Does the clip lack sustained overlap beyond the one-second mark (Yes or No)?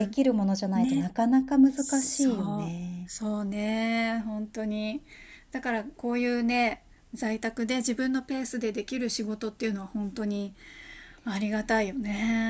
No